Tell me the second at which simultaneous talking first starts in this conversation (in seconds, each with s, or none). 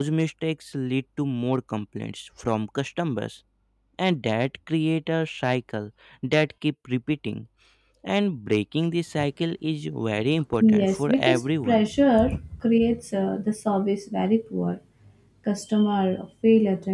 10.6 s